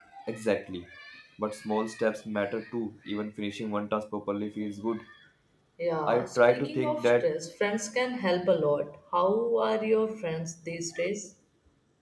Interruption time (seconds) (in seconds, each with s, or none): 6.1 s